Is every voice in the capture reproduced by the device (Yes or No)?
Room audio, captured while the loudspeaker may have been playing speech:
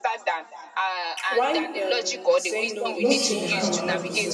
No